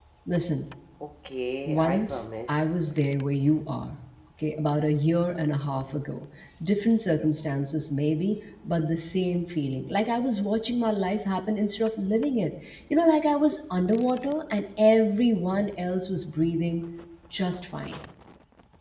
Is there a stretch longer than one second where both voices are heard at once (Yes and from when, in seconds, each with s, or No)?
Yes, from 1.6 s